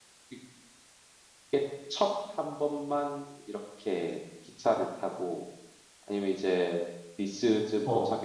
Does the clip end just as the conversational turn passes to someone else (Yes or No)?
No